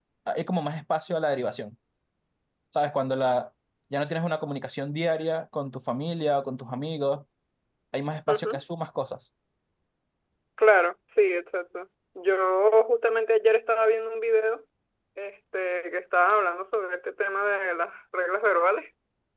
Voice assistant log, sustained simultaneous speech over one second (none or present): none